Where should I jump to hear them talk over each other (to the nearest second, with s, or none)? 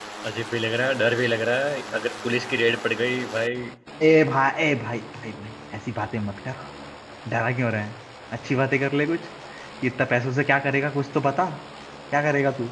none